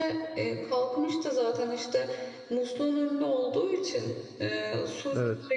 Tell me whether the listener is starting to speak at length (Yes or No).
No